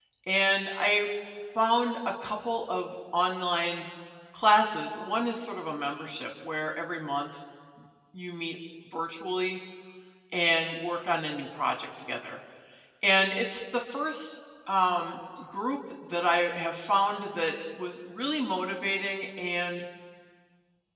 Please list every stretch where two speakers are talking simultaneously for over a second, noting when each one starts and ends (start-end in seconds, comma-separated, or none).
none